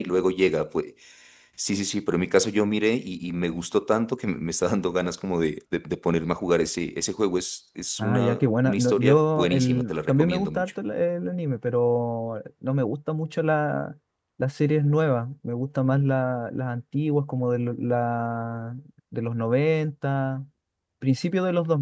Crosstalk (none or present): present